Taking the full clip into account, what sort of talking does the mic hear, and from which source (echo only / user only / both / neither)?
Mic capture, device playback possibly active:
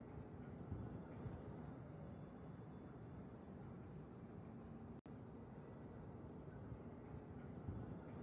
neither